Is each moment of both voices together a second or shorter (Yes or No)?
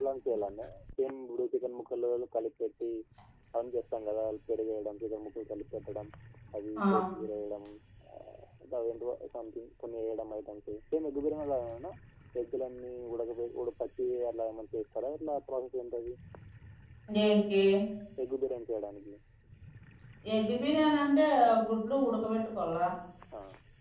Yes